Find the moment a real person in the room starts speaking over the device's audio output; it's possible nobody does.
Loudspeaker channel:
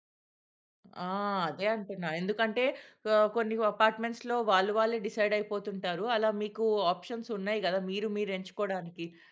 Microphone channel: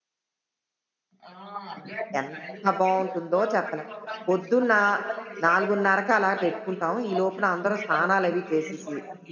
2.2 s

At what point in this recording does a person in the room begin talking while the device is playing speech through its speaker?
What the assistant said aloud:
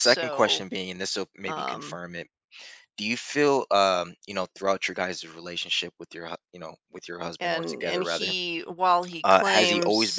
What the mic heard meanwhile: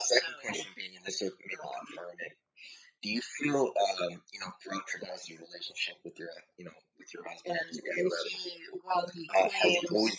none

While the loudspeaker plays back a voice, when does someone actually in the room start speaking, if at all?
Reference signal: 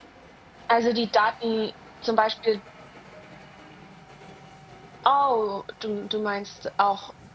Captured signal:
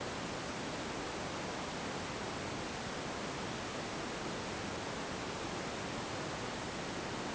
none

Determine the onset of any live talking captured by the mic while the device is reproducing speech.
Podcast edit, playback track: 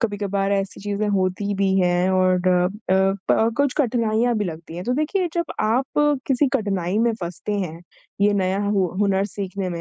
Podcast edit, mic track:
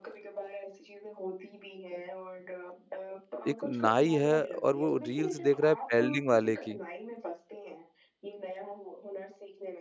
3.5 s

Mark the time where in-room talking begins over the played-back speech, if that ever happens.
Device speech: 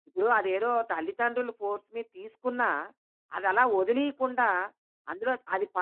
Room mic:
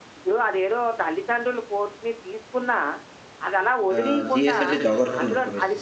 3.9 s

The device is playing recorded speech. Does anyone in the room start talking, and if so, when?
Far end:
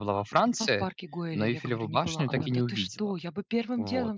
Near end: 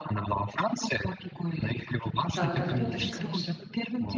2.3 s

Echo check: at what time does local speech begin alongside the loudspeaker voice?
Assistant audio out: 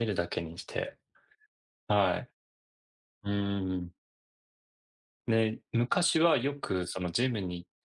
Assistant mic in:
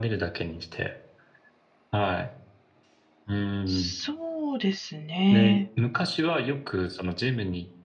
3.7 s

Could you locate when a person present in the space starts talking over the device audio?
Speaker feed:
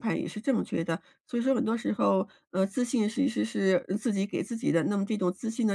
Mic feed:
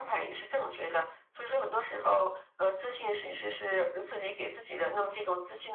none

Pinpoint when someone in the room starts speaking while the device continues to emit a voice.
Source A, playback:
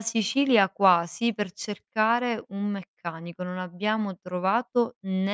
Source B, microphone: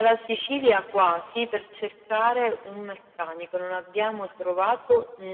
none

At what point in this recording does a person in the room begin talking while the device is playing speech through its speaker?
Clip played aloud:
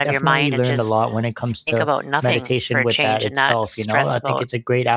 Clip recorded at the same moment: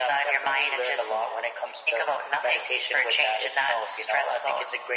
none

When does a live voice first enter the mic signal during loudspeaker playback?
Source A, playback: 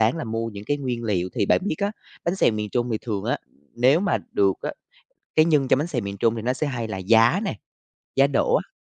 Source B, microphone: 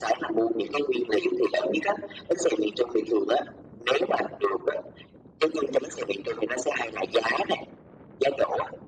none

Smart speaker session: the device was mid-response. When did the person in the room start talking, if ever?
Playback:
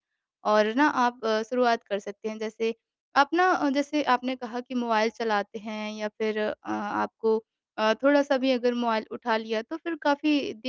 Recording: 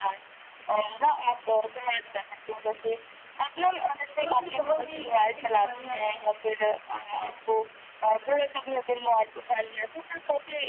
4.2 s

